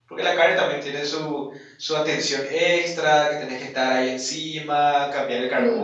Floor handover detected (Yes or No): Yes